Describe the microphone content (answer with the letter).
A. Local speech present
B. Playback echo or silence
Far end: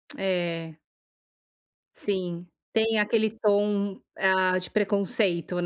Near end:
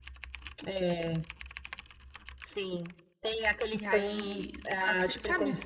A